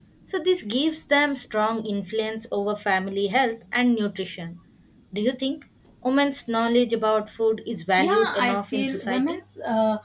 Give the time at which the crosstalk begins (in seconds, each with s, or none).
8.0 s